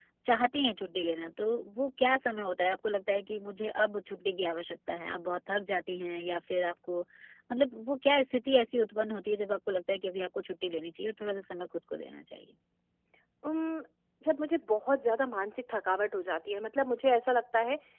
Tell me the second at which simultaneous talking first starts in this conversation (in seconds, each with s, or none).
none